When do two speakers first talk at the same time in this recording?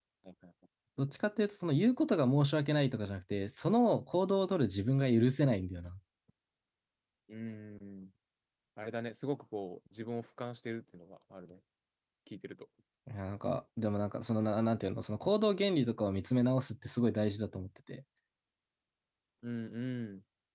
none

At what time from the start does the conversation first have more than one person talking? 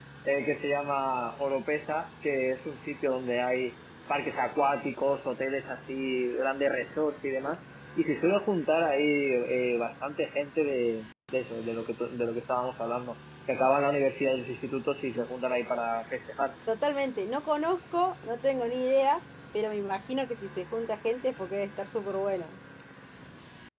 none

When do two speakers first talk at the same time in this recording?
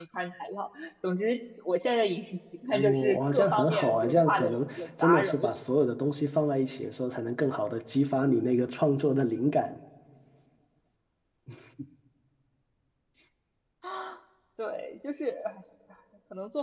2.7 s

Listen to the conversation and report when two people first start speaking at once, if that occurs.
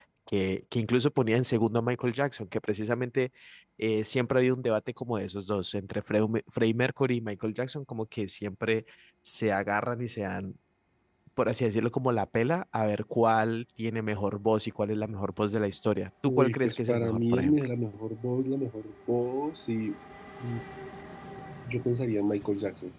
16.2 s

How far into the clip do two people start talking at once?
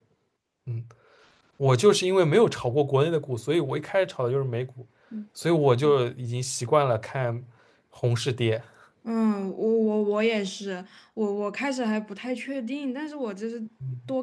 none

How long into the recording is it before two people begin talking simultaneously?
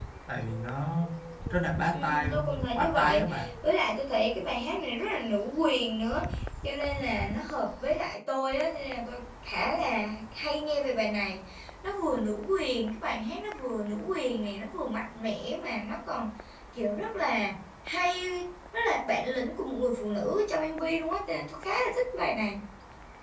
1.9 s

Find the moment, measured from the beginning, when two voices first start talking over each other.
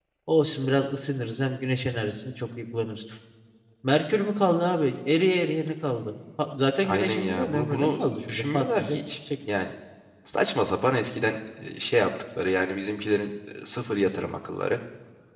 6.8 s

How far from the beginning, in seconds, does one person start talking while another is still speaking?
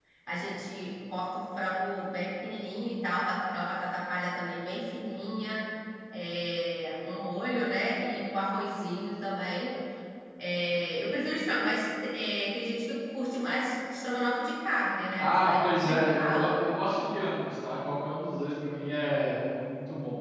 15.2 s

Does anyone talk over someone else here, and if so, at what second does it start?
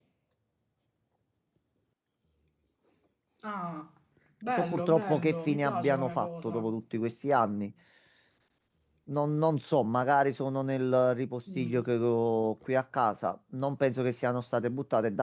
4.6 s

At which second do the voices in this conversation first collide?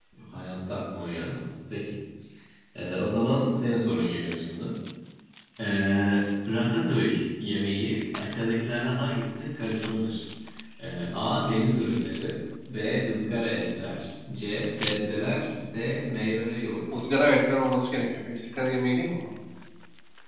none

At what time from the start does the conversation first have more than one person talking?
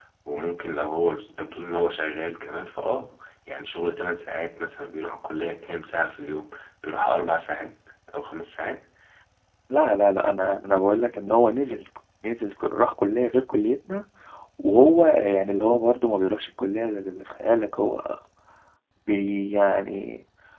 none

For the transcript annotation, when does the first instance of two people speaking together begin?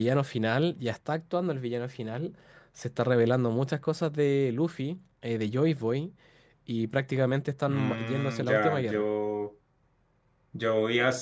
7.7 s

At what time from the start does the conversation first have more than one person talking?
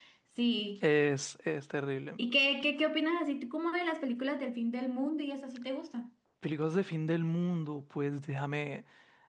none

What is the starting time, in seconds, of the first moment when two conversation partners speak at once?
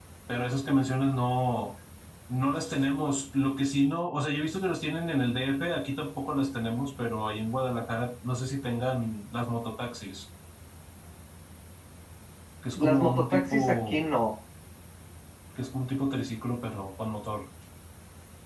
12.8 s

